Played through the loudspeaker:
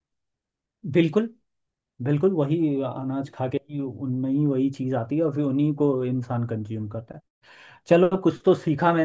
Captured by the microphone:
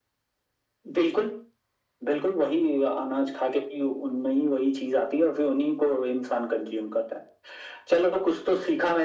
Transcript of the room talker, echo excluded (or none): none